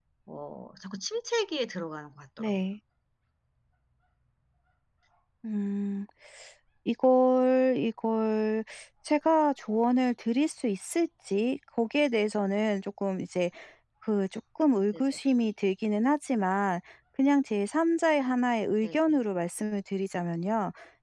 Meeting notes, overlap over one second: none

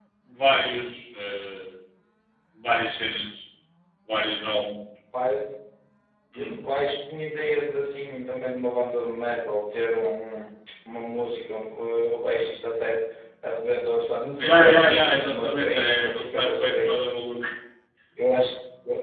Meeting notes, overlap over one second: present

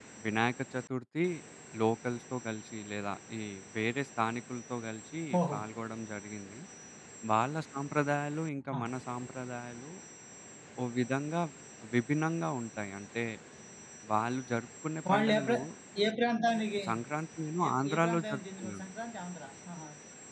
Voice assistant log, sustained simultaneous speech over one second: present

